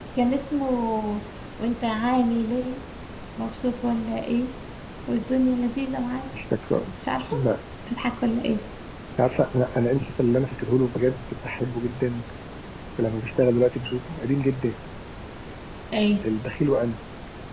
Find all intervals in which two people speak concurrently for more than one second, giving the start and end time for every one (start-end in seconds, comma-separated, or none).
none